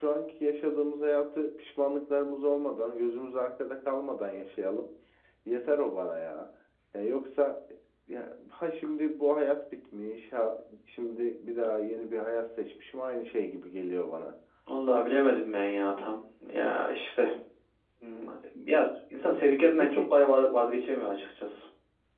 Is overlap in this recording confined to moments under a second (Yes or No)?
Yes